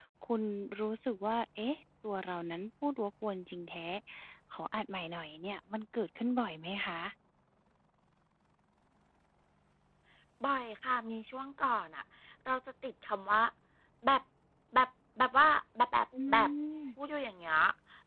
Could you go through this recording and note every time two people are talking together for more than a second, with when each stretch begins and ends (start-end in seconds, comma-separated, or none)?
none